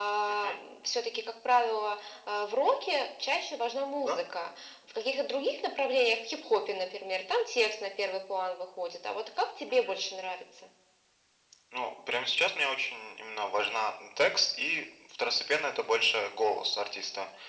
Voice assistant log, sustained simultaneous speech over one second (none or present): none